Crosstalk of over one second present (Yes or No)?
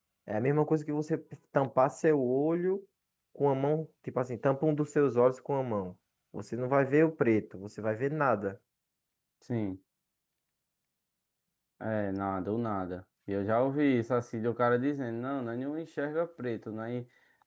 No